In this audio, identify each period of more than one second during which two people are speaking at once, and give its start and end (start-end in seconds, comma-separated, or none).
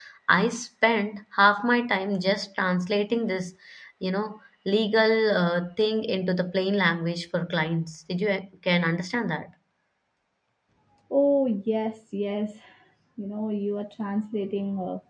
none